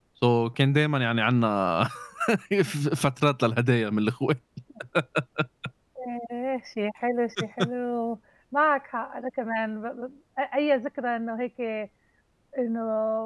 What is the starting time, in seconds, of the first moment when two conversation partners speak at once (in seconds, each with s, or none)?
none